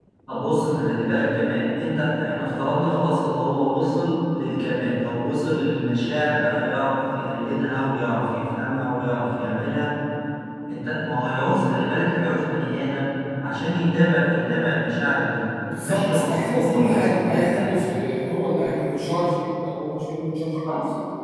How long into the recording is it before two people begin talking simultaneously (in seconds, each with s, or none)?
15.7 s